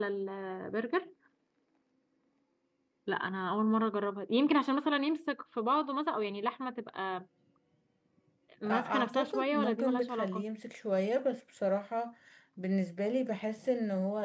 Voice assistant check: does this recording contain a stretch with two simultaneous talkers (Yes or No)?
Yes